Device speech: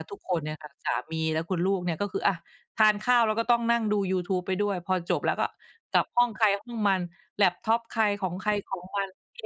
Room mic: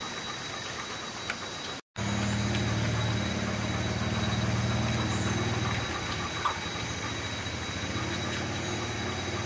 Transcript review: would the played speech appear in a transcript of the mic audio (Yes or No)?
No